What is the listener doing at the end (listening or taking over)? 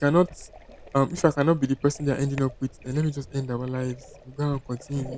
taking over